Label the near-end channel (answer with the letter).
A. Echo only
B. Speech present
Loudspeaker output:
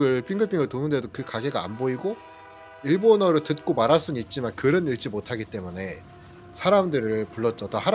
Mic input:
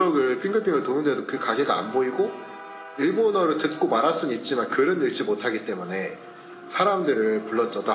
A